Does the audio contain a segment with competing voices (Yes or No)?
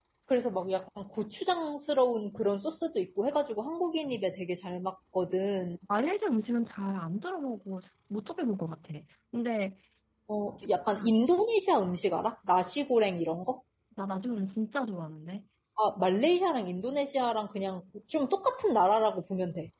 No